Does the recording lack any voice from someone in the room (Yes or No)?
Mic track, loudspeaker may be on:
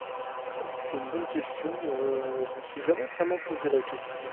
No